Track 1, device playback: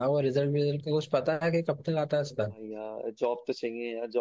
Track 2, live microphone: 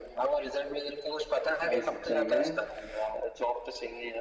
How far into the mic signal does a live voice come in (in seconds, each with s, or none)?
1.5 s